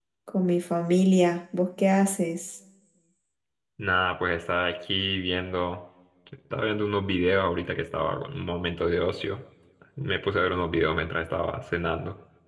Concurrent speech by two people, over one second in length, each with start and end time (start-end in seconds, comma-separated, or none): none